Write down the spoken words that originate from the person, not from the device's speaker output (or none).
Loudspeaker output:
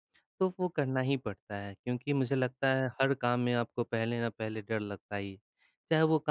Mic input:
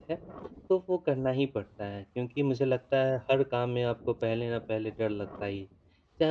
none